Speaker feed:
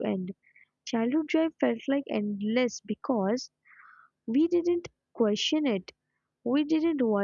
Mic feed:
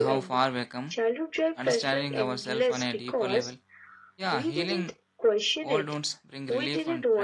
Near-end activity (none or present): present